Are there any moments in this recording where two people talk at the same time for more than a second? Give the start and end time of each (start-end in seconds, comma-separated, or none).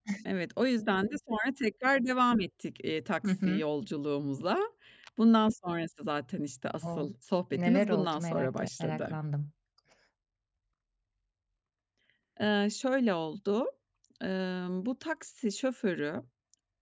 7.5-9.2